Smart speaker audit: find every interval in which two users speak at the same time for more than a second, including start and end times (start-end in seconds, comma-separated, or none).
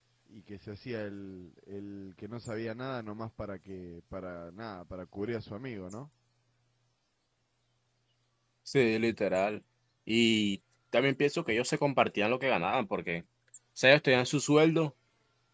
none